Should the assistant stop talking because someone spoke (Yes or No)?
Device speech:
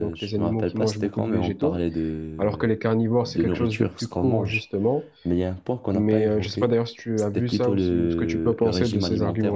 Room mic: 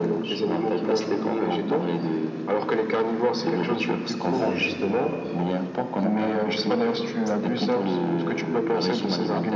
Yes